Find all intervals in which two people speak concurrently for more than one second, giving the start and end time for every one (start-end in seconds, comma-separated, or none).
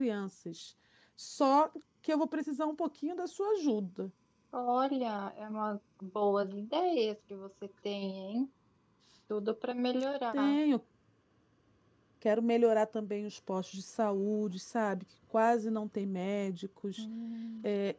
none